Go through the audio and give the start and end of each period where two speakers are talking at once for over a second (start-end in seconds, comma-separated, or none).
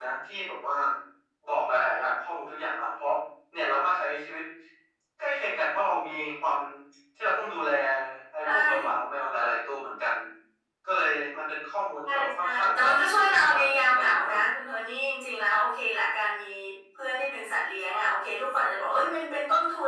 12.1-14.3